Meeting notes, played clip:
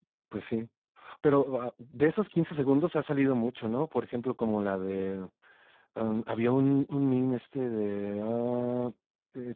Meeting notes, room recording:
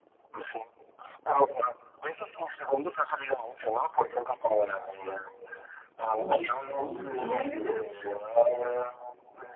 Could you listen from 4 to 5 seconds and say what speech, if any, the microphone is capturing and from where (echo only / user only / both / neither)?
echo only